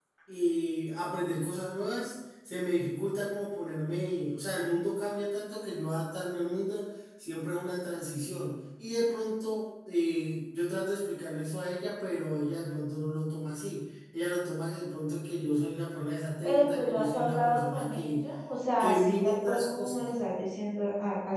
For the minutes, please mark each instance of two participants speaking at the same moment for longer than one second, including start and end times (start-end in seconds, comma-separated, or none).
16.4-18.2, 18.8-20.1